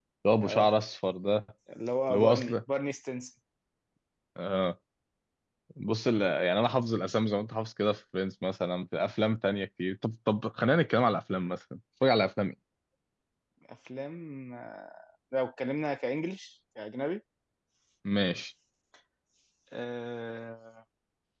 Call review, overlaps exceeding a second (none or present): none